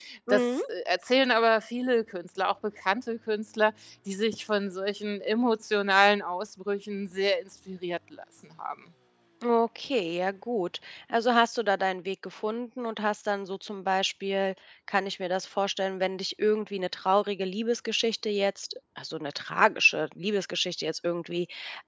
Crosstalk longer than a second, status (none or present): none